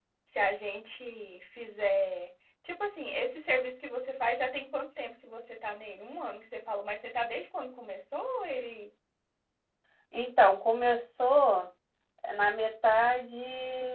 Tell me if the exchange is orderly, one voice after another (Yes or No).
Yes